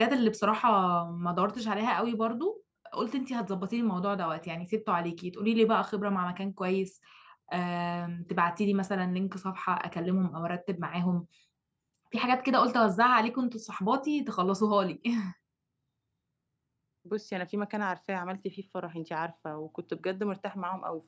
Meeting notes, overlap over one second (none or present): none